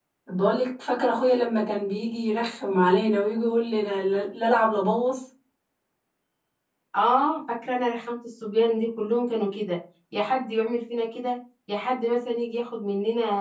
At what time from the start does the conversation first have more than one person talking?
none

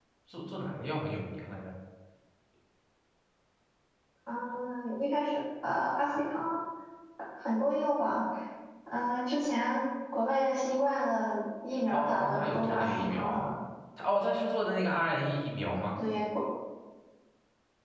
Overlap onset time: 11.9 s

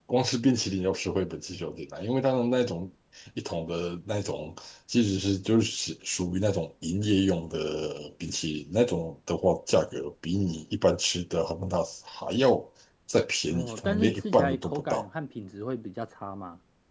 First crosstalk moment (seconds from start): 13.5 s

